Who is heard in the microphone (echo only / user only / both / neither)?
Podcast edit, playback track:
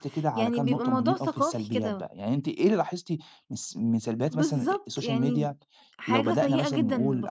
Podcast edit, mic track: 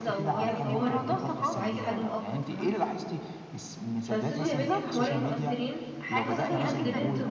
both